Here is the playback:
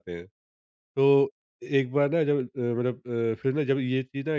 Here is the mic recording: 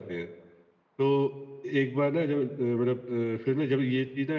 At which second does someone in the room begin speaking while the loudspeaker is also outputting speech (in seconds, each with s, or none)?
none